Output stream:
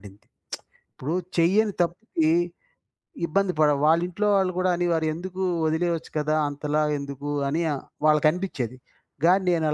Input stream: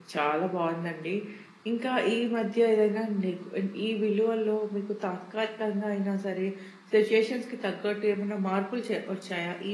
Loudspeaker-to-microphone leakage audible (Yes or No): No